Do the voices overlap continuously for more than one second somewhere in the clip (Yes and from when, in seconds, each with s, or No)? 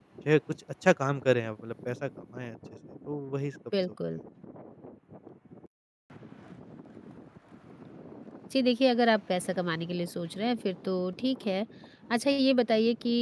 No